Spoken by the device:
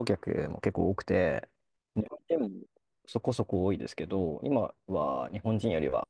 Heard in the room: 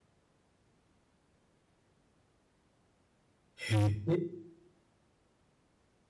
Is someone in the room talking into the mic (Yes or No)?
Yes